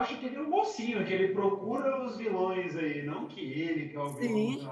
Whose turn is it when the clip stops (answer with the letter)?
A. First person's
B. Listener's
B